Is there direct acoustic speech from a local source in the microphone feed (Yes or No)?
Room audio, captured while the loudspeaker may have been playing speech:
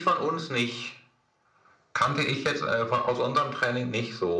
No